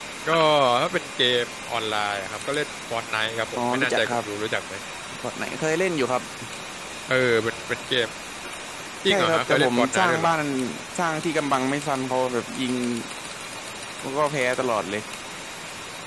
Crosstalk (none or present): present